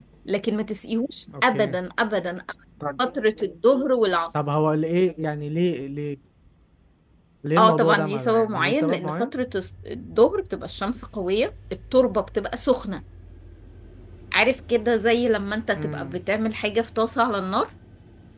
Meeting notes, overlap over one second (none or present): present